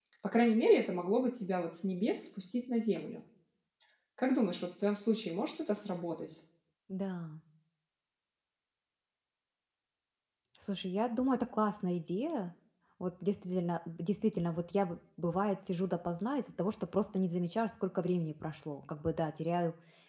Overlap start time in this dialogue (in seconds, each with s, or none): none